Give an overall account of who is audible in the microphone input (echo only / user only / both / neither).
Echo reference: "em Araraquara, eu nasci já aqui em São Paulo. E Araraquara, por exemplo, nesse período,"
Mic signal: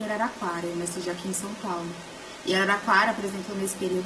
echo only